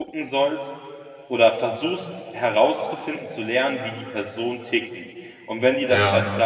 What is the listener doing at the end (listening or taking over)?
listening